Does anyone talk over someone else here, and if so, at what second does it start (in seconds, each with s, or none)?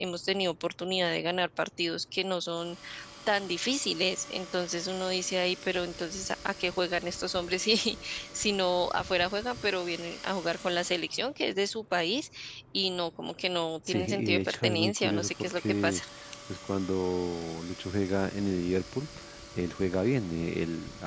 13.9 s